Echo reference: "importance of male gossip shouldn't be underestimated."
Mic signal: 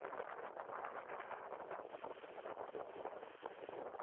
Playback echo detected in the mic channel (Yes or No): No